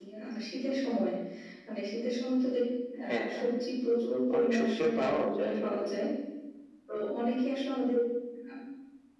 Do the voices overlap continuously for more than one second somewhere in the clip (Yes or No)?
Yes